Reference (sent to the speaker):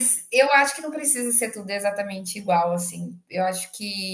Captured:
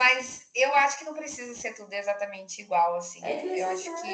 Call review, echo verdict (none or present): present